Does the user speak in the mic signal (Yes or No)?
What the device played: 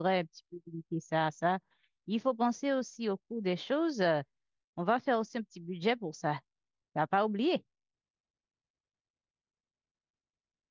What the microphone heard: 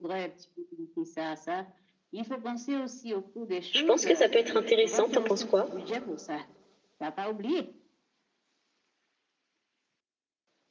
Yes